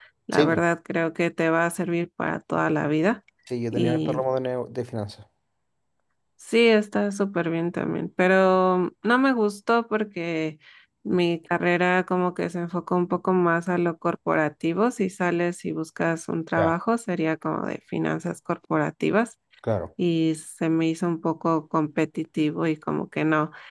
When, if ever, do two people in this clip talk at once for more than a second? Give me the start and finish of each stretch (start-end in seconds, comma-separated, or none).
none